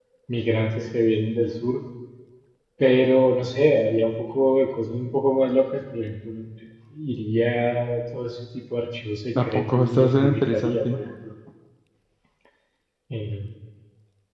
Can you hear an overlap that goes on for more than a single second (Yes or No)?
Yes